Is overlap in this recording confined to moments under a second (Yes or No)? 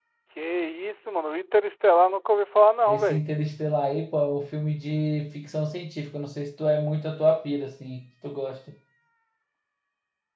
Yes